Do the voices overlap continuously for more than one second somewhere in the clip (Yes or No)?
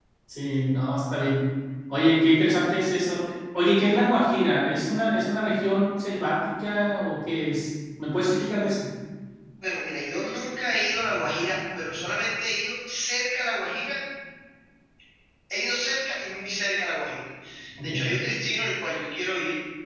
No